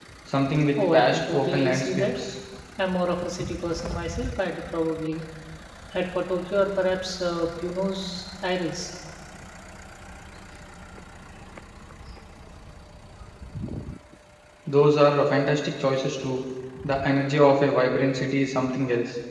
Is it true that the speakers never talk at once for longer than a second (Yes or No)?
No